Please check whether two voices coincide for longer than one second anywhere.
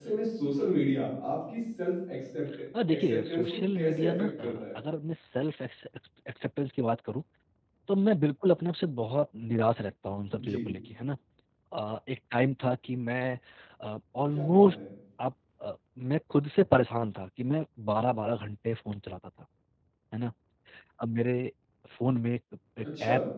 Yes, from 2.9 s

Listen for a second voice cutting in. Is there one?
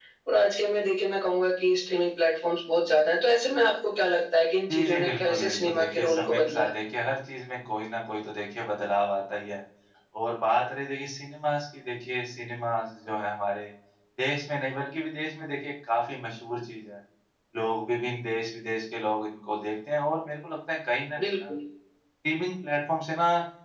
Yes, from 4.7 s

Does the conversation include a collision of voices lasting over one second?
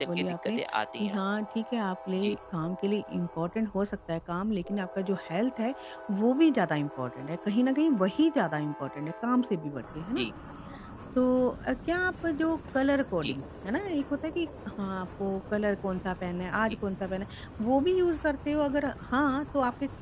No

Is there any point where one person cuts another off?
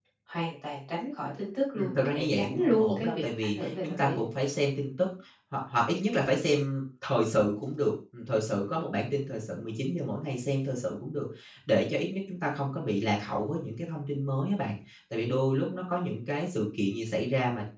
Yes, from 1.8 s

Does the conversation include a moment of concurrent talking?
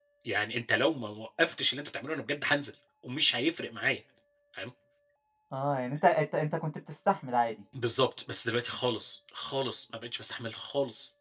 No

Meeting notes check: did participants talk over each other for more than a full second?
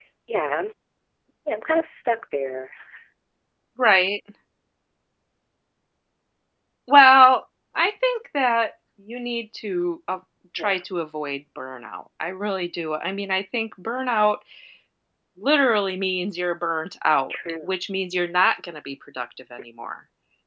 No

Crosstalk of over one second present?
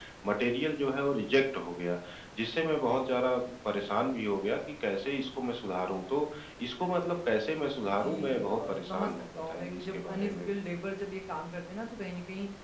Yes, from 7.8 s

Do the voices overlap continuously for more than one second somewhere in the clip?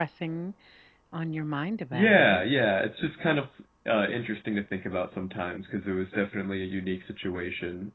No

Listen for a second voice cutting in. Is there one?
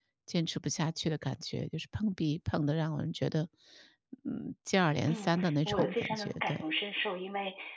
Yes, from 5.1 s

